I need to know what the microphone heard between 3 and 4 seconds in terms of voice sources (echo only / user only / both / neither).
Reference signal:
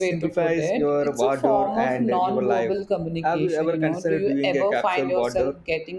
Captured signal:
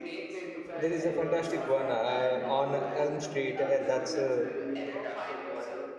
both